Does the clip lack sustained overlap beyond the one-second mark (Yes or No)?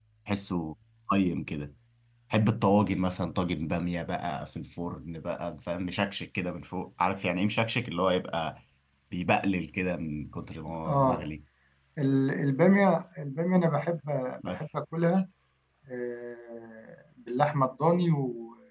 Yes